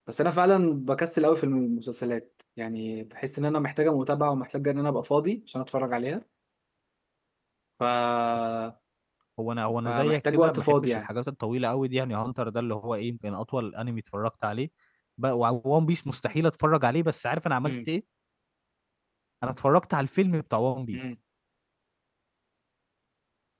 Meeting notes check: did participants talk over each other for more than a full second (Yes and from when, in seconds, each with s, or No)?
Yes, from 9.9 s